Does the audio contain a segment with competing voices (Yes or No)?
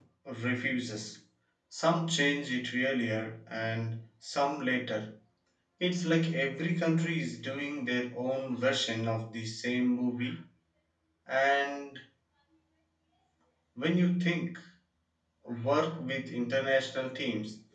No